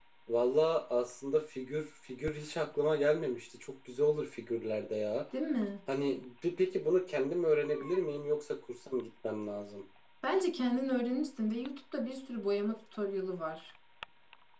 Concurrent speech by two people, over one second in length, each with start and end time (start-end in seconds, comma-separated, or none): none